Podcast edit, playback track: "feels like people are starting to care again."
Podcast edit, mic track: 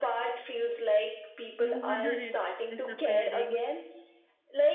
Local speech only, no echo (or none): No wonder it's disappearing.